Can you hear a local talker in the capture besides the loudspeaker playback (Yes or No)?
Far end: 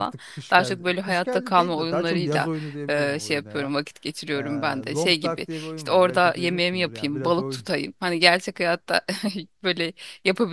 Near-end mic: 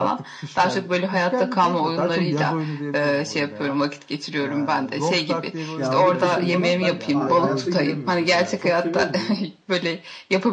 Yes